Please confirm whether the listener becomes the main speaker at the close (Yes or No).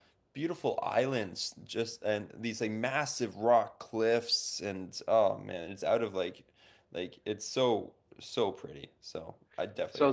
Yes